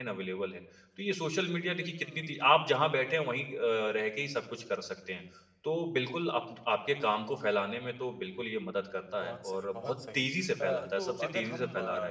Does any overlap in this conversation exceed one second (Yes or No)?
Yes